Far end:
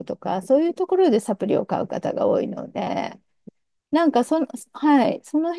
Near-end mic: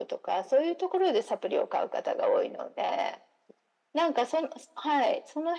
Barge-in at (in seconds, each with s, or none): none